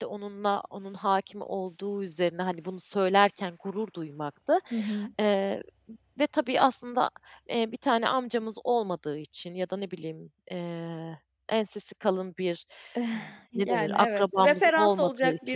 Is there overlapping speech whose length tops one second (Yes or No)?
Yes